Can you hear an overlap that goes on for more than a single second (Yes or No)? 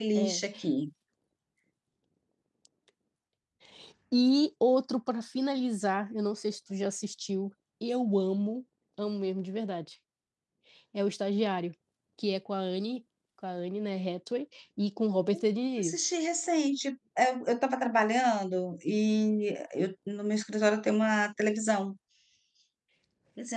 No